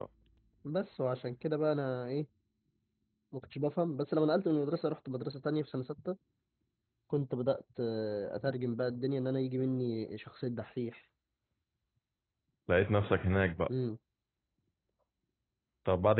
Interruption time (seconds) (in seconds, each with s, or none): none